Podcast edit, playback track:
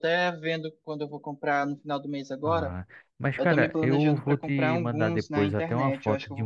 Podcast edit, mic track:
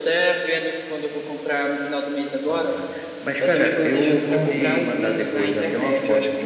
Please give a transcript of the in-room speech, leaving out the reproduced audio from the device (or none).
Ah,